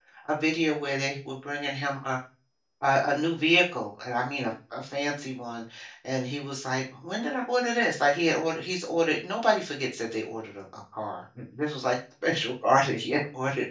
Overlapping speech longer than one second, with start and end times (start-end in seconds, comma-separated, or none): none